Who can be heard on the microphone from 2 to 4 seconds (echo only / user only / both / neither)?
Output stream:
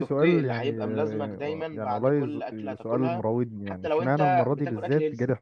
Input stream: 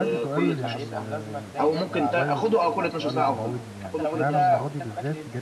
both